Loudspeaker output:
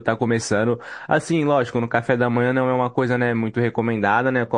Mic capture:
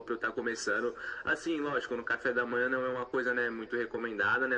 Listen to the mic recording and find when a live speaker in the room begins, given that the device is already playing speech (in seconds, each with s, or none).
none